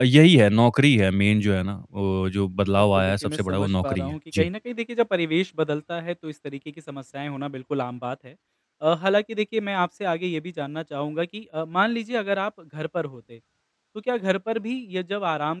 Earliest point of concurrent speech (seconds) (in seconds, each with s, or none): 2.8 s